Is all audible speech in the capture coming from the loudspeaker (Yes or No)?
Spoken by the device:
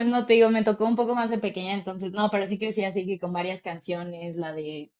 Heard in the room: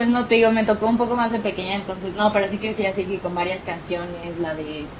Yes